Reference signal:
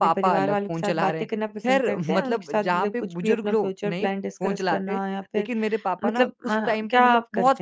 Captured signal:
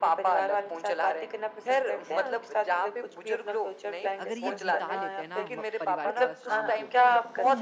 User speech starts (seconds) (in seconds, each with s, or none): 4.2 s